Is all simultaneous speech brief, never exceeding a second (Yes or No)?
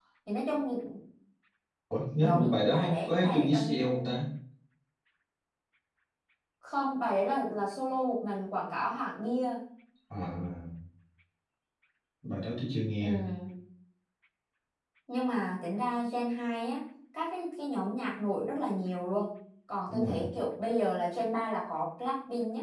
No